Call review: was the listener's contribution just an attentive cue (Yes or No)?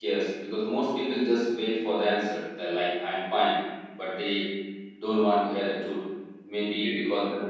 Yes